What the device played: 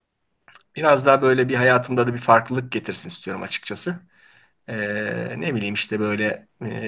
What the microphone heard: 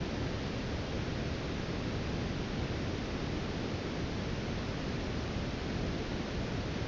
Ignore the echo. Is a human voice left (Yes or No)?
No